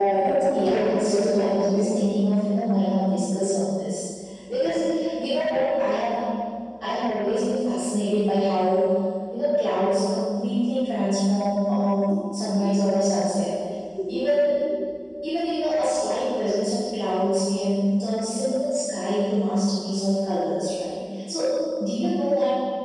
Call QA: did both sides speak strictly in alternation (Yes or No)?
No